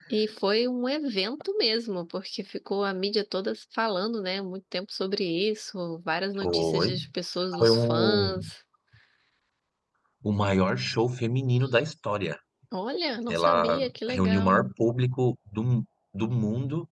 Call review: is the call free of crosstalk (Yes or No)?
No